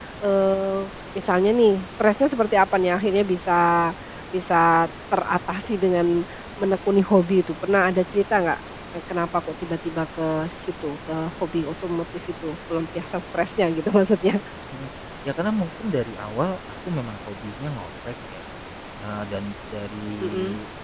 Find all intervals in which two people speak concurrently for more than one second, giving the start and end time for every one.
none

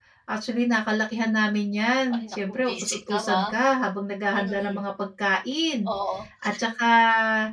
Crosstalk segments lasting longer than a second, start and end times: 2.1-3.4

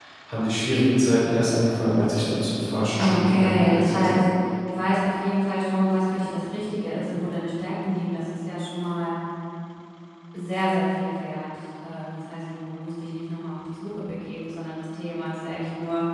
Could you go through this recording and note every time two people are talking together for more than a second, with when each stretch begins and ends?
3.0-4.3

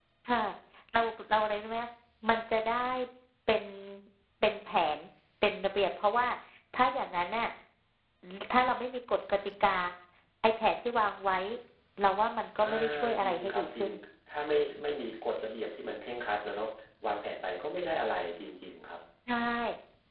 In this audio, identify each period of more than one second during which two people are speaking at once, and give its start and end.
12.6-13.9

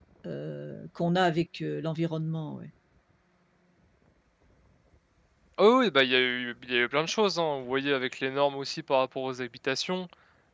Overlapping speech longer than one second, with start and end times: none

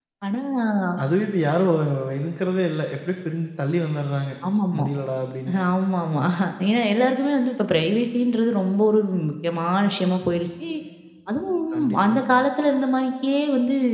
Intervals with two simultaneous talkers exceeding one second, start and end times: none

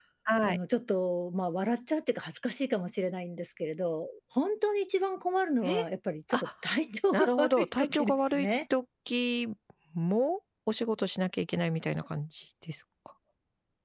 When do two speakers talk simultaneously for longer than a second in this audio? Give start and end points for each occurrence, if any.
7.1-8.5

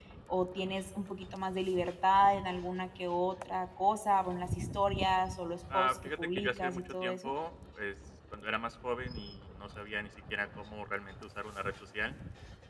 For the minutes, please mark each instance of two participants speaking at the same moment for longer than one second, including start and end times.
5.7-7.3

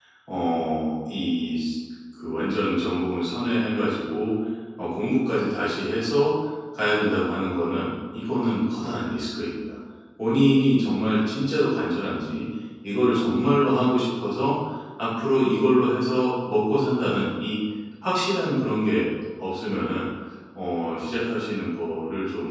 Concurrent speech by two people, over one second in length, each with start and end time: none

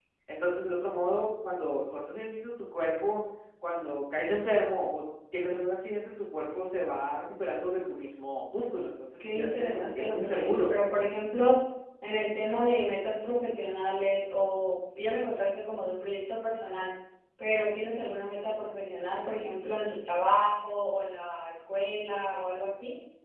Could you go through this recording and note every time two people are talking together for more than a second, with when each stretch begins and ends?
9.2-10.7

